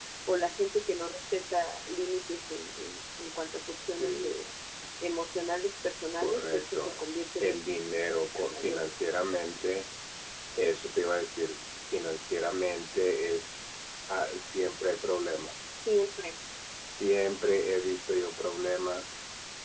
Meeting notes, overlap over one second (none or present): present